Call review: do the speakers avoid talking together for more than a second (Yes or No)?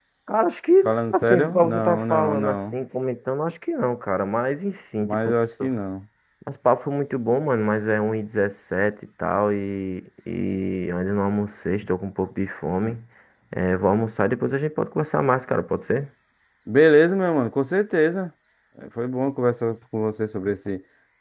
No